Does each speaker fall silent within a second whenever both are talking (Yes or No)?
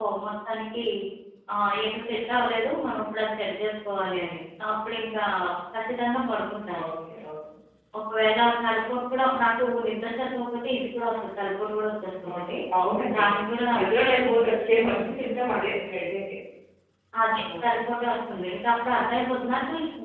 Yes